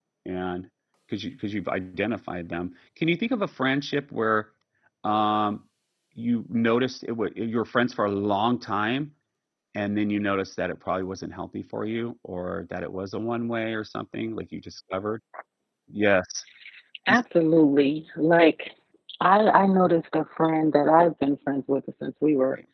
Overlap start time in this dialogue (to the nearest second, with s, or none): none